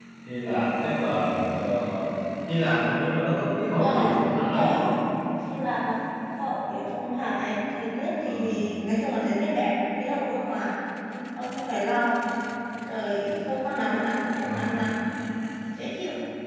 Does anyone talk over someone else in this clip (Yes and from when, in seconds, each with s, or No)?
Yes, from 3.7 s